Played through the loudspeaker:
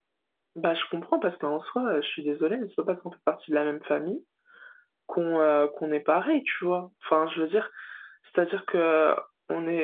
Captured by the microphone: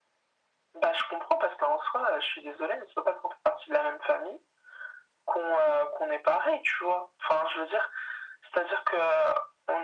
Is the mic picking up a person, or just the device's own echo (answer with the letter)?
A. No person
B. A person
A